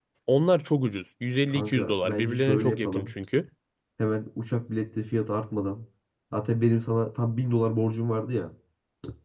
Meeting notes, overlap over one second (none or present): present